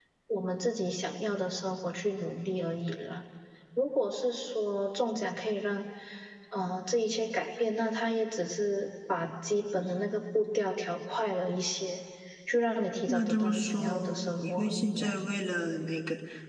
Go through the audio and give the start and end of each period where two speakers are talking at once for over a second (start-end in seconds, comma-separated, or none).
13.1-15.2